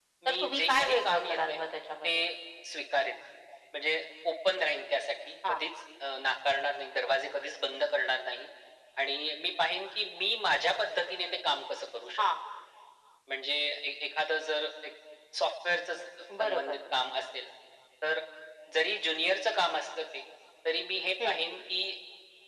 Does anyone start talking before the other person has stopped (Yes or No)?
Yes